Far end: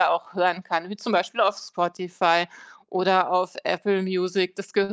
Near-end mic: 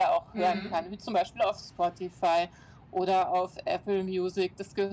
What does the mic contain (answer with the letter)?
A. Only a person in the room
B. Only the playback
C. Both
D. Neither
C